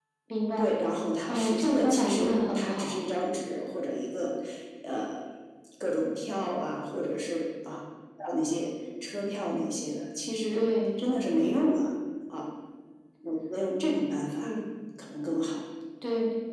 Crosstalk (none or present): present